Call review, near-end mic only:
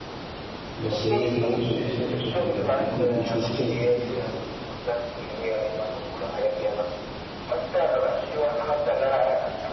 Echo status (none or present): present